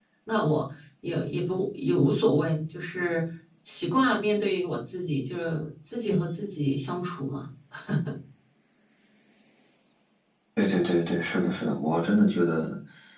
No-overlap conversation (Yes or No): Yes